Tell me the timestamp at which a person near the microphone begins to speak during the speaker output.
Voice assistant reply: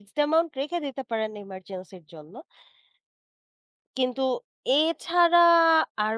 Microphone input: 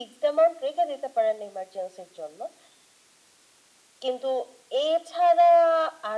none

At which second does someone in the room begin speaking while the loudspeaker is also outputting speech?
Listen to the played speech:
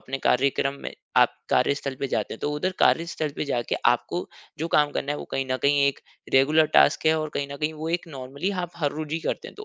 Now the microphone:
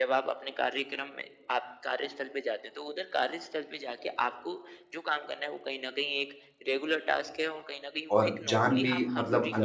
8.2 s

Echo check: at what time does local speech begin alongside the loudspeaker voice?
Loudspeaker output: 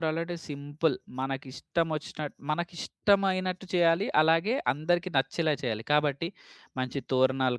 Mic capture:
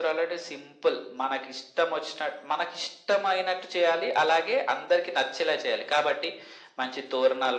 none

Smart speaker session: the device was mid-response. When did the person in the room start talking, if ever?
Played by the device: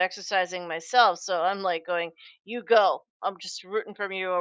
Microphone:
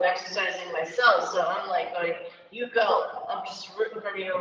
none

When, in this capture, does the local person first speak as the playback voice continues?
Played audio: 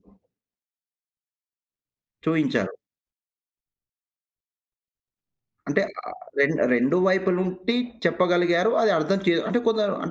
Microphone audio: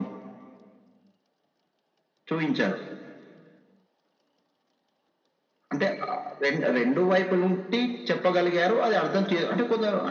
none

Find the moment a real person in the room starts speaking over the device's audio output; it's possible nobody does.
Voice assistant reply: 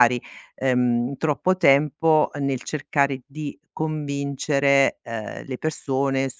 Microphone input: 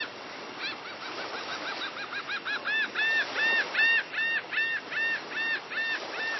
none

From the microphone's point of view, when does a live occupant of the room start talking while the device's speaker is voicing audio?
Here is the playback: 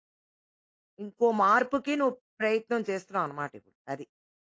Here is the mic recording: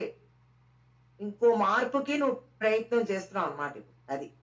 none

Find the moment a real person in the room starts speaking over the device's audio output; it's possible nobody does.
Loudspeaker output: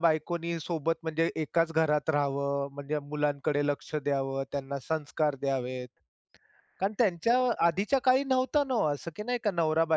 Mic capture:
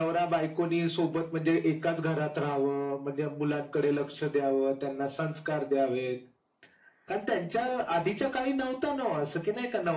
none

